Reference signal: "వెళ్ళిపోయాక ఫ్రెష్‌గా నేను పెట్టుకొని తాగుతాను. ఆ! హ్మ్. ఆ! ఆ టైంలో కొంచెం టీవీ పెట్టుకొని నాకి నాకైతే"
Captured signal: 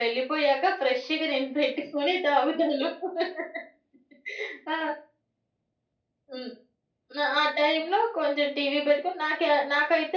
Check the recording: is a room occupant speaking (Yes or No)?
No